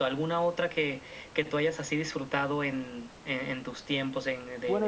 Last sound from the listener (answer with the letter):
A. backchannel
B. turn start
B